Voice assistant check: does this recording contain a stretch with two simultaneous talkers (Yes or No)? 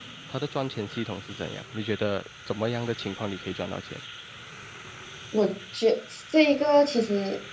No